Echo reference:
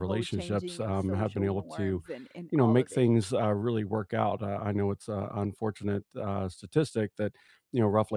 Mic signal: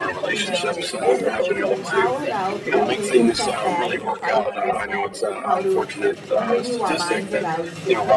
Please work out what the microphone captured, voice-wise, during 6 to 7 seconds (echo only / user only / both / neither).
both